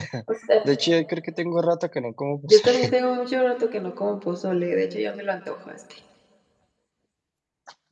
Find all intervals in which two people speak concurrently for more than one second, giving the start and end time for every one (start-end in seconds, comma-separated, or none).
none